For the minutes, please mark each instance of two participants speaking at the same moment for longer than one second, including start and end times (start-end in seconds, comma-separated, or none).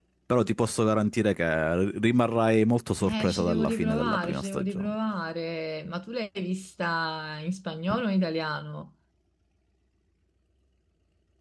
3.0-5.0